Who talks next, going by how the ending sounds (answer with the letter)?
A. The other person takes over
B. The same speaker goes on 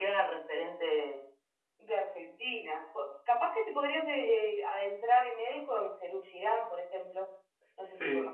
A